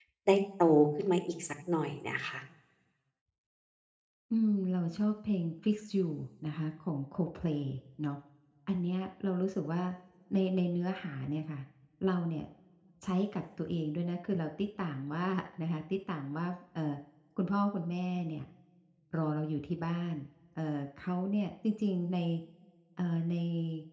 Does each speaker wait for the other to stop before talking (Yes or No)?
Yes